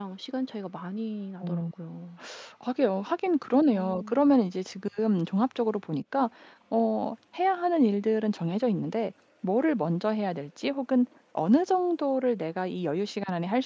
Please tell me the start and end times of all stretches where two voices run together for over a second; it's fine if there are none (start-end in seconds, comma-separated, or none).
none